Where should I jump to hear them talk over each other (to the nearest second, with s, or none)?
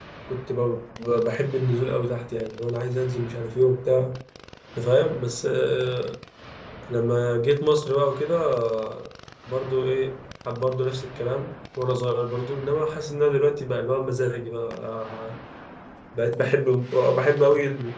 none